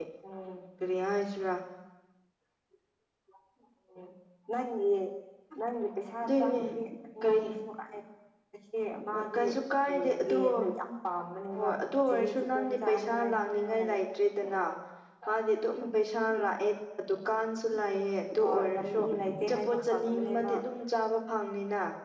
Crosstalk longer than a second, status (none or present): present